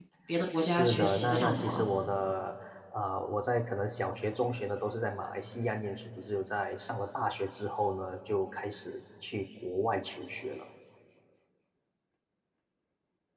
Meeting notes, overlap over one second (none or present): present